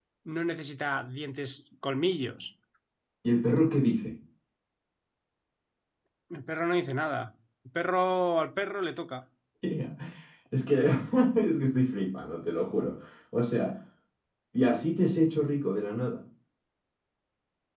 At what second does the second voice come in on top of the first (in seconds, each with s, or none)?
none